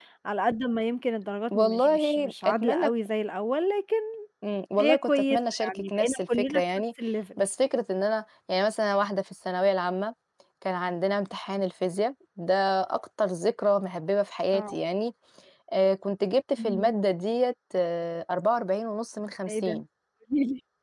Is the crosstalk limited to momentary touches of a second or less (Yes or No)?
No